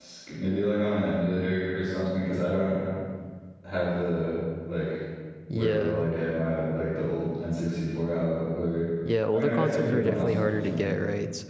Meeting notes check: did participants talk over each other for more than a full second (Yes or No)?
Yes